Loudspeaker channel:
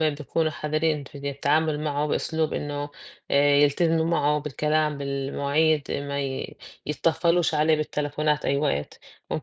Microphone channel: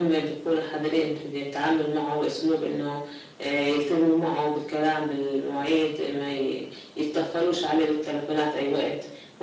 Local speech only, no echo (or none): none